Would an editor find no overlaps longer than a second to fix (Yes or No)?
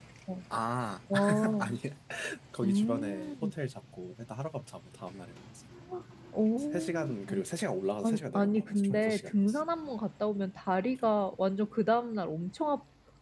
No